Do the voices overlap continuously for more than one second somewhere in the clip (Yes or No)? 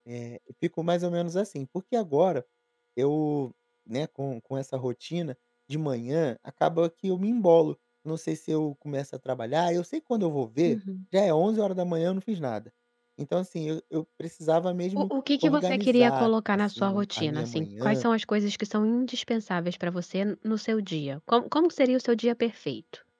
Yes